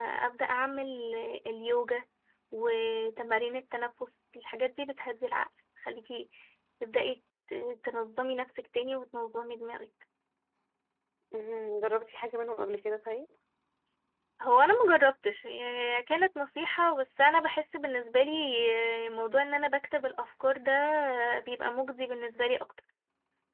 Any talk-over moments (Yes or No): No